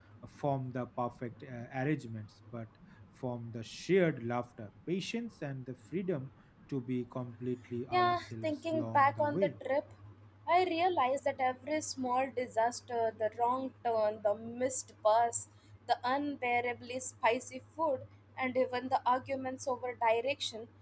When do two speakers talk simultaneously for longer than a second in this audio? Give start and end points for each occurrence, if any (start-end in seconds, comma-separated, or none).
7.9-9.5